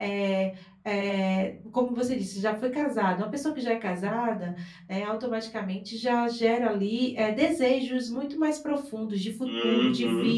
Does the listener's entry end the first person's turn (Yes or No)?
Yes